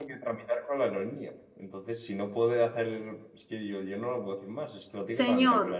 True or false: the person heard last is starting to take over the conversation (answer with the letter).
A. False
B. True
B